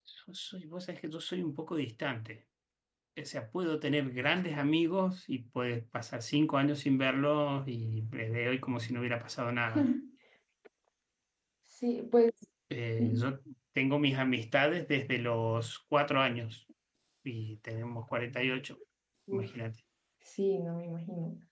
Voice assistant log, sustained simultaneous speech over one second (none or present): none